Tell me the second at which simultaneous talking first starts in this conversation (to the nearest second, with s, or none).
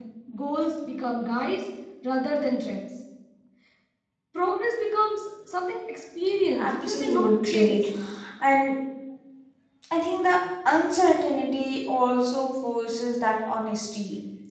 7 s